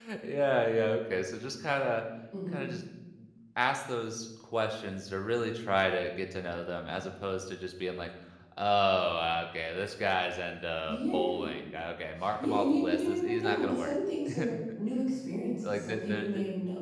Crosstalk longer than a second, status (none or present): present